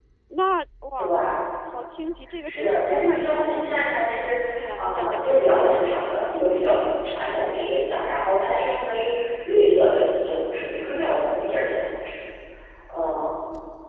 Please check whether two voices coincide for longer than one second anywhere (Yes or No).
Yes